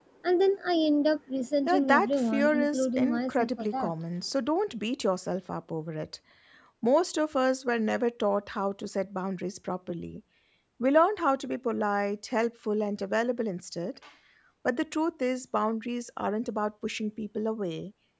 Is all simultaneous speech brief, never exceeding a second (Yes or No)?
No